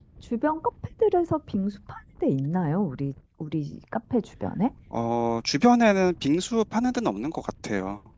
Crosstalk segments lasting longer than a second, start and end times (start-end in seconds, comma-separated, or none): none